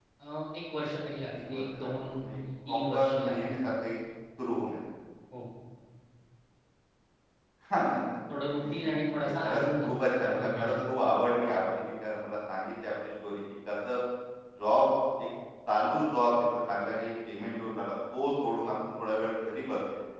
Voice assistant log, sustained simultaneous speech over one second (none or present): present